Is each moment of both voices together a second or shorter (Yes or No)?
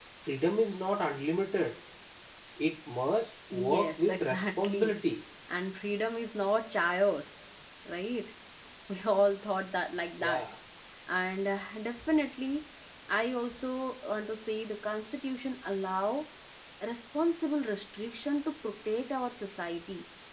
No